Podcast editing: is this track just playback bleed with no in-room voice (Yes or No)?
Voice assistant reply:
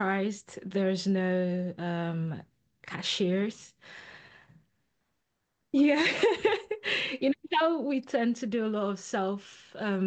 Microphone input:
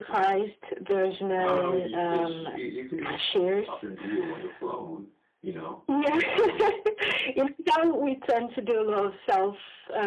No